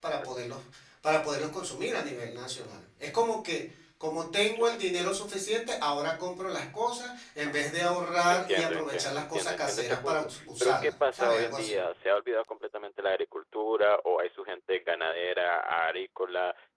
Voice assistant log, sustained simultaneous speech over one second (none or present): present